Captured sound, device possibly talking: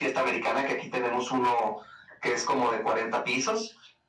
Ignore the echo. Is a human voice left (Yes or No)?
No